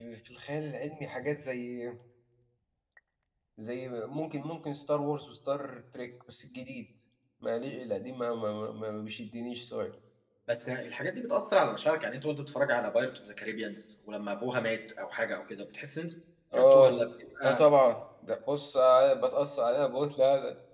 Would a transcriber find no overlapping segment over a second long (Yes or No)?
Yes